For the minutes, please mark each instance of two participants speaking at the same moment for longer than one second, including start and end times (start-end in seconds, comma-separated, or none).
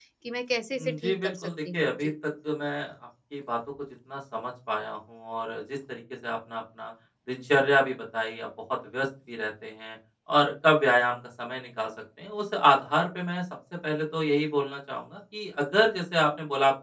0.8-2.1